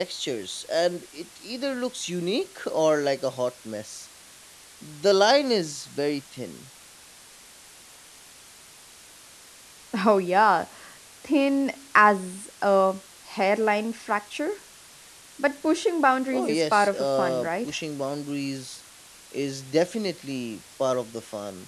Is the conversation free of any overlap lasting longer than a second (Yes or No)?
No